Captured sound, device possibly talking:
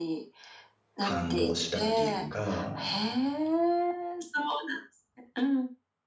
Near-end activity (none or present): present